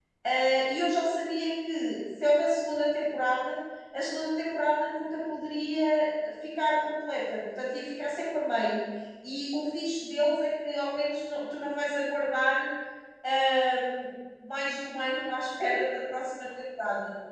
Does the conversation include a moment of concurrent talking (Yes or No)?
No